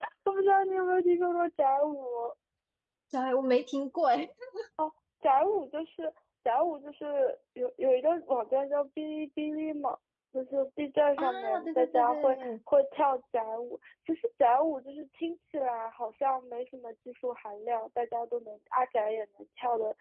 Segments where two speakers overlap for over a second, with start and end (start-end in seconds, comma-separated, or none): 11.2-12.5